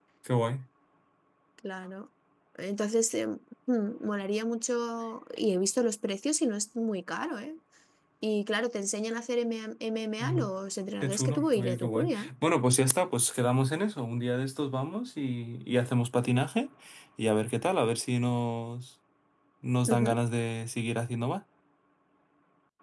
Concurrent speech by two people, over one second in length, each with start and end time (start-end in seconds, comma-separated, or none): 11.0-12.3